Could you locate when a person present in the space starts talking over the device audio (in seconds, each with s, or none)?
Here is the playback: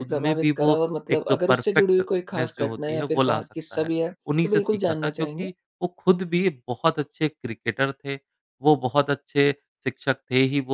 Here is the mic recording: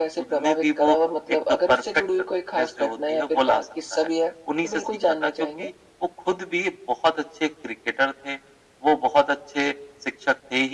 none